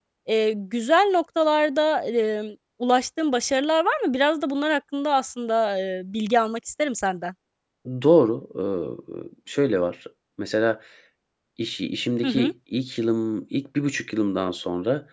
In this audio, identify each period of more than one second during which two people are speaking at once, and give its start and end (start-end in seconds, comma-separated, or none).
none